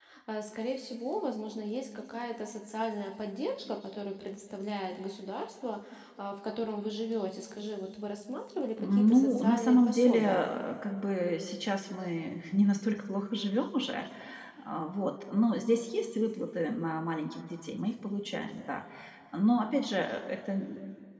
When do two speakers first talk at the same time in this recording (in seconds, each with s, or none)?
8.8 s